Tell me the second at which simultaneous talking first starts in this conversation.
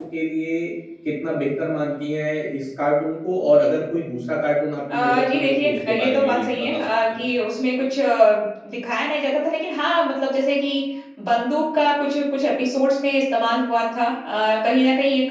4.9 s

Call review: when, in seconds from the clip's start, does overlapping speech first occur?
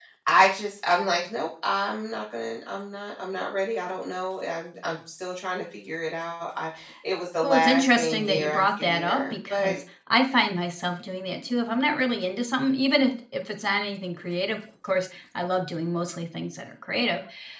7.4 s

